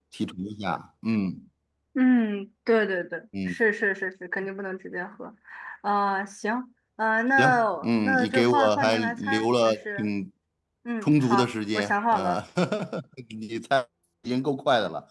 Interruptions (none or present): present